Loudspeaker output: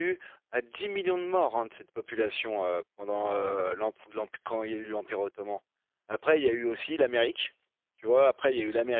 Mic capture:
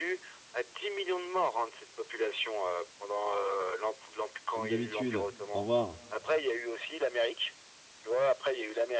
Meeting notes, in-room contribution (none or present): present